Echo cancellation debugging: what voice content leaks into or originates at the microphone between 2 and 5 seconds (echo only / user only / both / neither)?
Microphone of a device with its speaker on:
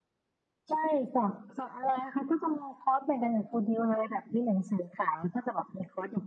echo only